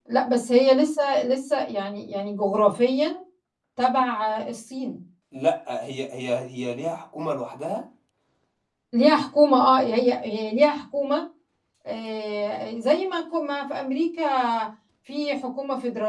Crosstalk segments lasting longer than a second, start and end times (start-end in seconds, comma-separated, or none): none